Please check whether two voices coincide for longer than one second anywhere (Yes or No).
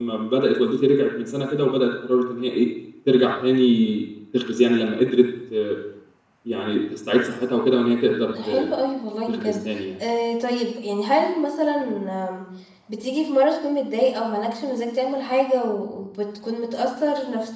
No